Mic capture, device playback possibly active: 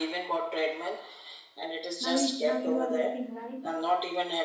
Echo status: present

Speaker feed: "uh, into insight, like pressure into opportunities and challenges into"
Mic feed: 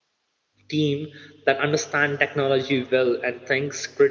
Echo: none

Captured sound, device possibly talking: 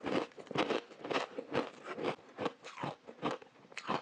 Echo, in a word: none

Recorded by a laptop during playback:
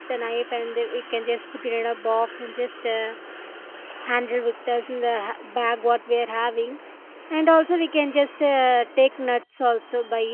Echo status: none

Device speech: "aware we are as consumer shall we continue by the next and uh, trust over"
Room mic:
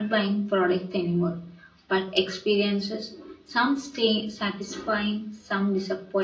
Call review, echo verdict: none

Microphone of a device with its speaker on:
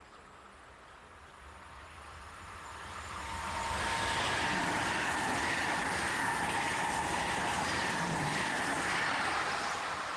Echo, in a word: none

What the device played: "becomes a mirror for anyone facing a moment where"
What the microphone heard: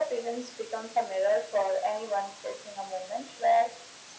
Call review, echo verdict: present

